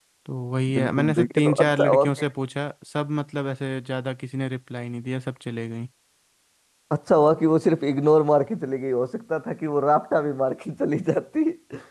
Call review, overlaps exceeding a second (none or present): present